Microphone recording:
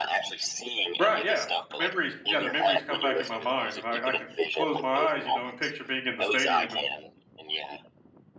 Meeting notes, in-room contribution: present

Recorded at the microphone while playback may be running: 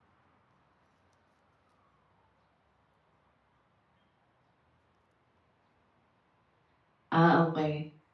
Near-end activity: present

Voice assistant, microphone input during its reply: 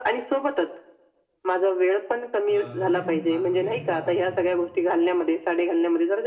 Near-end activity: present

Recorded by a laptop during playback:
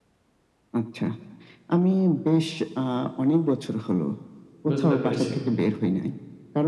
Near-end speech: present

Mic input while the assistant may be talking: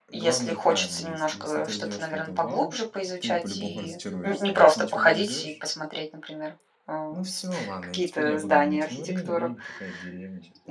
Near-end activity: present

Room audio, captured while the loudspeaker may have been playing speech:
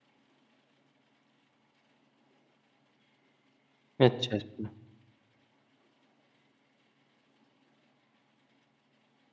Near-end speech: present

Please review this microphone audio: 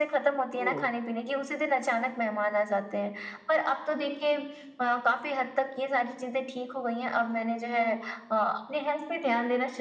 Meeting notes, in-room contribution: present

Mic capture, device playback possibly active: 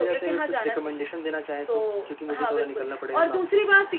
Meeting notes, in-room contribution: none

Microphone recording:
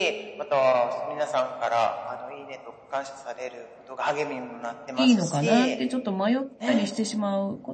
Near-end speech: present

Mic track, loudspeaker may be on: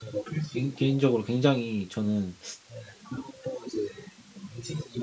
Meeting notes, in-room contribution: present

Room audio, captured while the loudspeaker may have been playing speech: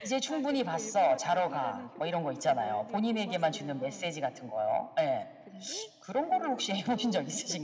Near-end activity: present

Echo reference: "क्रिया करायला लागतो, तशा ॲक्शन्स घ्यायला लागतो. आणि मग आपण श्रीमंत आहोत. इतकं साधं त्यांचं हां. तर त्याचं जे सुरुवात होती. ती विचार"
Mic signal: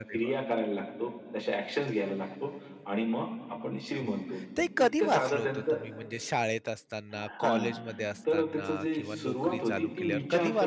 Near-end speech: present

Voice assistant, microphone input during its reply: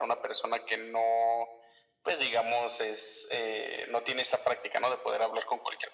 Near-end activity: none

